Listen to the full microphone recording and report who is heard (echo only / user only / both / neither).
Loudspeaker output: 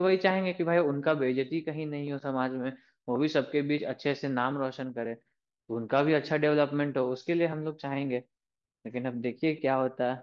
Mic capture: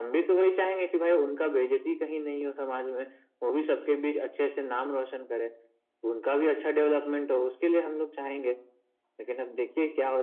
echo only